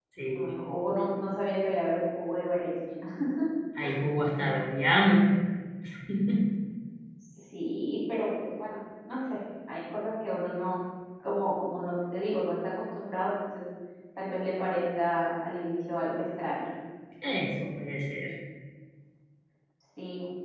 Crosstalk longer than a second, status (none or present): none